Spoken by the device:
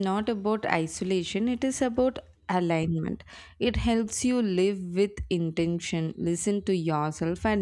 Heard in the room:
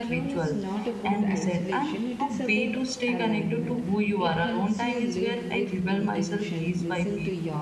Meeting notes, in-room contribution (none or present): present